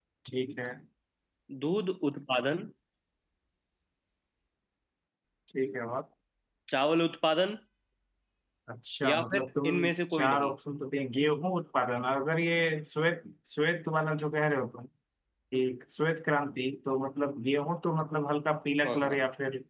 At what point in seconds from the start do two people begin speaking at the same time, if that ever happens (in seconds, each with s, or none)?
9.0 s